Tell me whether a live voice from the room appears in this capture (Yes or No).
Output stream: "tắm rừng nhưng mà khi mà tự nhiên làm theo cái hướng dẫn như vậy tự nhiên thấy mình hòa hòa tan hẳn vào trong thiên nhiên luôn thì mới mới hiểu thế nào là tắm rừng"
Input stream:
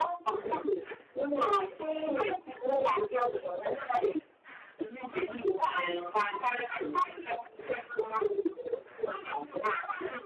No